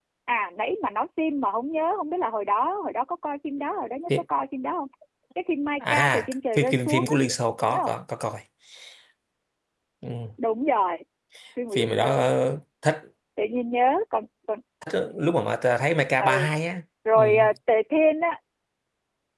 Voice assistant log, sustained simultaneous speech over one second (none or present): present